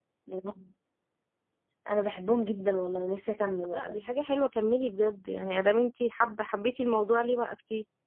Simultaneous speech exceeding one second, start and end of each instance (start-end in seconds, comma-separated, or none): none